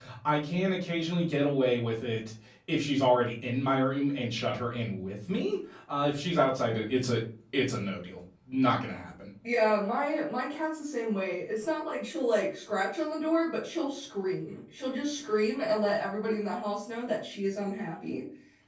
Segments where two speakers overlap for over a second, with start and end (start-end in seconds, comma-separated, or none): none